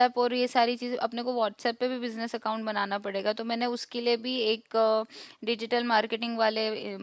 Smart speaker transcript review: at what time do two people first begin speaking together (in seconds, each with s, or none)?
none